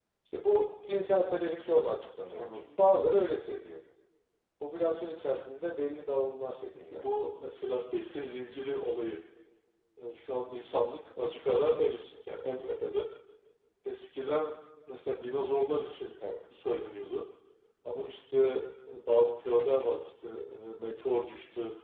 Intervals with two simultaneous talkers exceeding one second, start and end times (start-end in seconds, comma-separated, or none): none